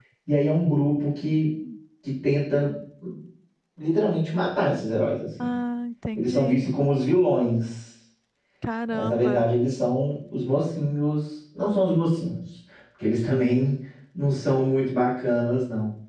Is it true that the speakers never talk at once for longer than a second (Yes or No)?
Yes